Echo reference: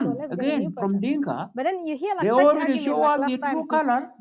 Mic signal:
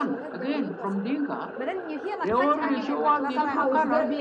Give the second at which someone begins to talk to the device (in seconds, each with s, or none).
2.6 s